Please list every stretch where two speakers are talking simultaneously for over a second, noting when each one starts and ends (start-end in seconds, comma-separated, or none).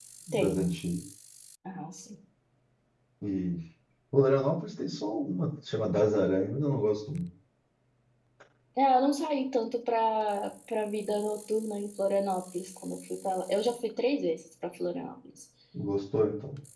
none